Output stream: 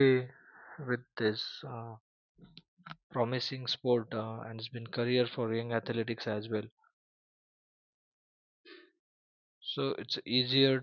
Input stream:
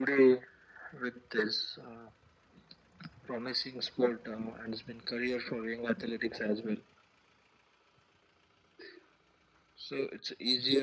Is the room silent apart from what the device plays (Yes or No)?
Yes